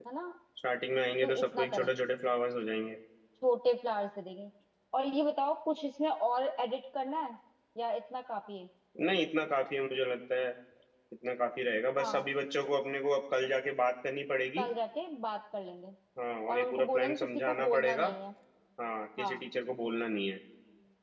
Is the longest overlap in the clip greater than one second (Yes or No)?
Yes